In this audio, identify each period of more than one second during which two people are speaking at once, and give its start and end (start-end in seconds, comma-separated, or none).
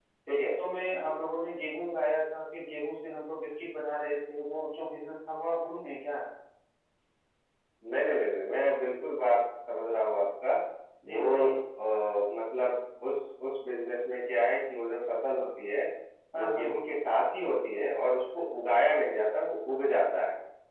none